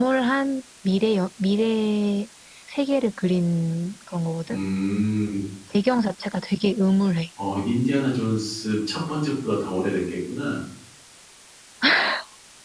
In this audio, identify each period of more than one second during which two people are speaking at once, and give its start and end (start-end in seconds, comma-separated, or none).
none